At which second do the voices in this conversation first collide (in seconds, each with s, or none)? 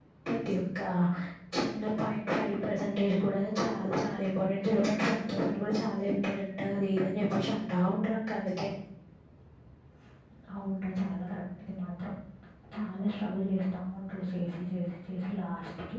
none